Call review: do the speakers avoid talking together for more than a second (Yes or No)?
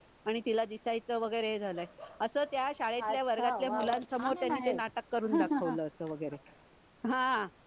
No